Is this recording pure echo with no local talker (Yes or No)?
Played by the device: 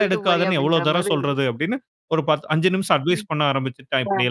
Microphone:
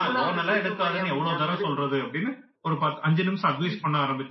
Yes